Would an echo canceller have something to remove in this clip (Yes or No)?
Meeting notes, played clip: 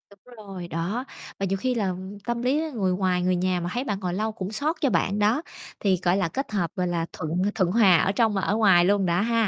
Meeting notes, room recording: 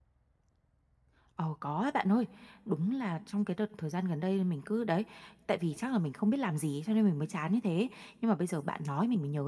No